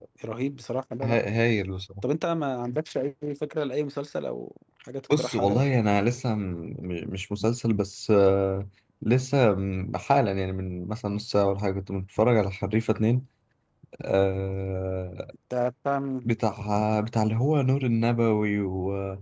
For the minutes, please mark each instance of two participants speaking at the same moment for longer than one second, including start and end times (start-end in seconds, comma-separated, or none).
none